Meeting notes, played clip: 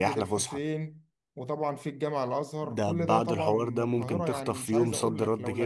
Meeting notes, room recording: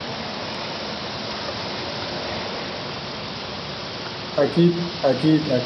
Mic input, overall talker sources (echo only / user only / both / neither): user only